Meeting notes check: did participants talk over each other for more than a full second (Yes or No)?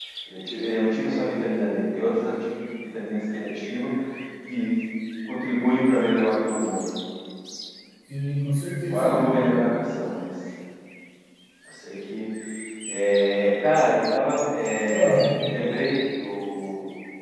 No